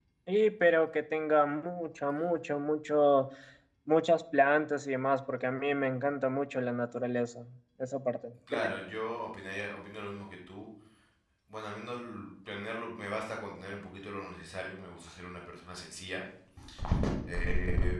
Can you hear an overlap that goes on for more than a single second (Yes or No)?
No